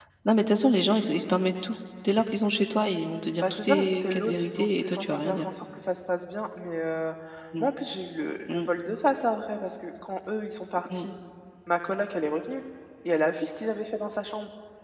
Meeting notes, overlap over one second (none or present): present